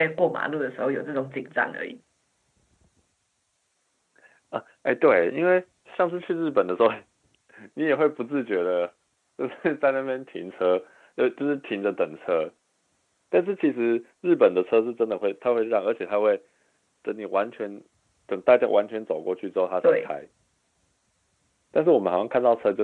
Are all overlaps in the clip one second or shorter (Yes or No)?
Yes